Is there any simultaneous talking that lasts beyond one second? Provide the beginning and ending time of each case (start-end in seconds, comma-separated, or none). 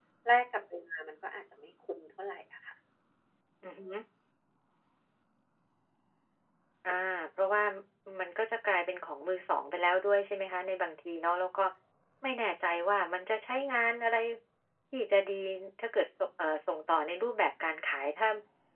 none